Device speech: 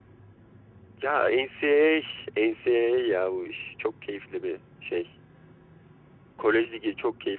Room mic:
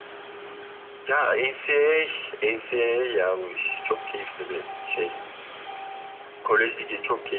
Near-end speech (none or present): none